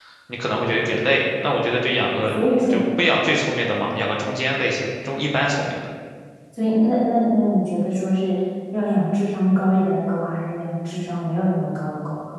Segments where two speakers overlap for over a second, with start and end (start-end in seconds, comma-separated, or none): none